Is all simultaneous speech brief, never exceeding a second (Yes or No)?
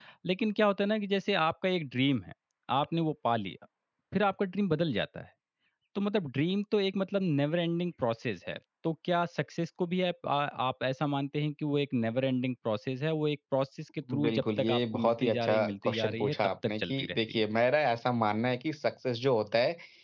No